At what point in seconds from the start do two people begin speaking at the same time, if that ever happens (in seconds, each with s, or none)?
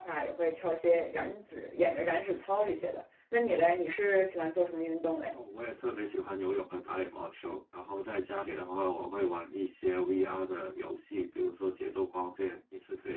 none